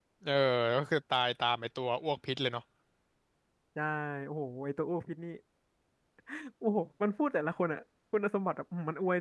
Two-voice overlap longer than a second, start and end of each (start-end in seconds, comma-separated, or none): none